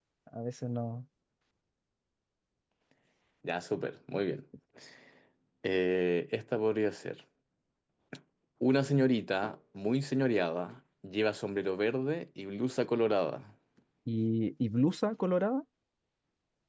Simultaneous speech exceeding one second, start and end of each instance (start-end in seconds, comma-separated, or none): none